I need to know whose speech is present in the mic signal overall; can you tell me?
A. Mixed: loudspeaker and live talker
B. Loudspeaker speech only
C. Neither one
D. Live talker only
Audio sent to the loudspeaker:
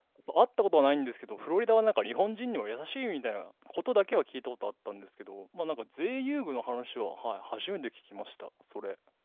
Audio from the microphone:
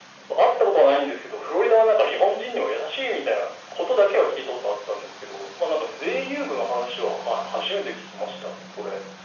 B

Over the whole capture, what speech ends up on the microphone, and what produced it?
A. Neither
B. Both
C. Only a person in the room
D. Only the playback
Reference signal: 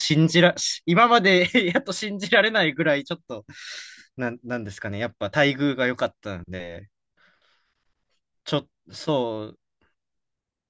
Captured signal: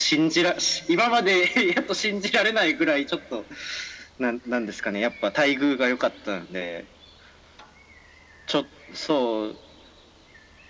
D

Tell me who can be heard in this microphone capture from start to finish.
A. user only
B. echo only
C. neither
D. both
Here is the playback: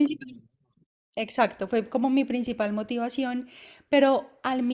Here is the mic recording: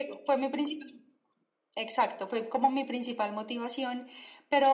B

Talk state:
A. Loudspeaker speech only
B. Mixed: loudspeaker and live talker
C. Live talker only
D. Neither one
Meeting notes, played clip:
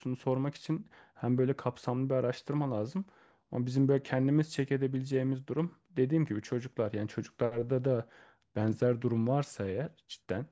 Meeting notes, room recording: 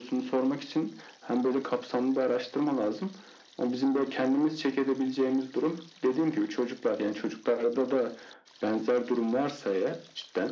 A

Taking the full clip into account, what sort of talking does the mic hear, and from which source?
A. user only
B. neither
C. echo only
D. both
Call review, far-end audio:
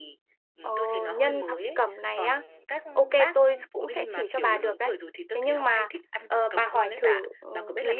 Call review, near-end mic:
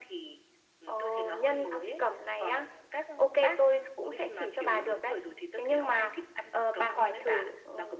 C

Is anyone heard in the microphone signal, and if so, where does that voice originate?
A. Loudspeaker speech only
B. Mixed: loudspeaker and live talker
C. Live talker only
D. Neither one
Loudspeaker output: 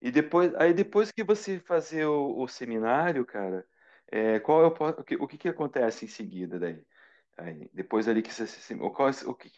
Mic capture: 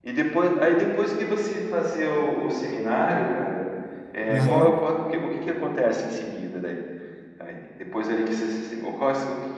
B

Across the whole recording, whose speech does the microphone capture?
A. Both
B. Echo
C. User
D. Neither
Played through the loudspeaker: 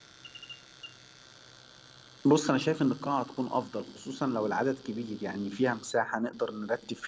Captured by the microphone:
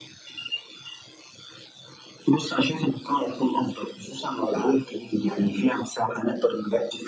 B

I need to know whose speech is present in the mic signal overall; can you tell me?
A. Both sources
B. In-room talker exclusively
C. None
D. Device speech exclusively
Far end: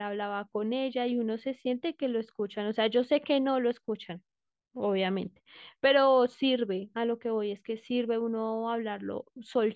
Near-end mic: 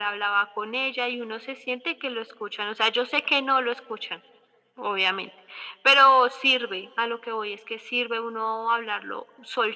D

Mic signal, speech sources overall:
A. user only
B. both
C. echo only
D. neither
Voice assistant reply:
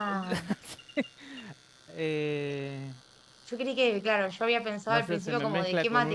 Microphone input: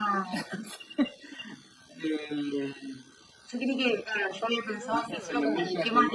B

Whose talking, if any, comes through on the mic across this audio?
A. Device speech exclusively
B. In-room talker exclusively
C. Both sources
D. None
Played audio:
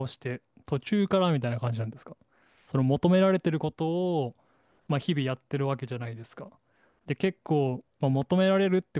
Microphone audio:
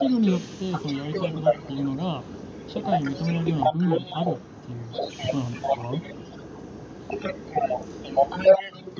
C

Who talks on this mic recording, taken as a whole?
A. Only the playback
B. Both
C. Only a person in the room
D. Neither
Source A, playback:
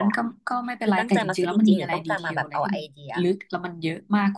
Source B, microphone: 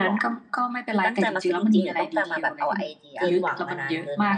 B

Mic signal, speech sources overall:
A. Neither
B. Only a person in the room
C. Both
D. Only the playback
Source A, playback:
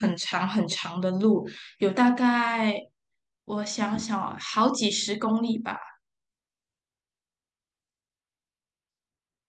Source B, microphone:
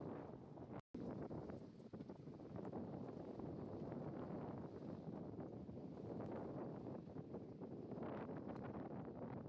A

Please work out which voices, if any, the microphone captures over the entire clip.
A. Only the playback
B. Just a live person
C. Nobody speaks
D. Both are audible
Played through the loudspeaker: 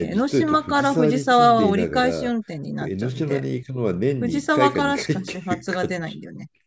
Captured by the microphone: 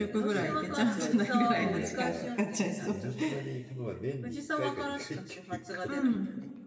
D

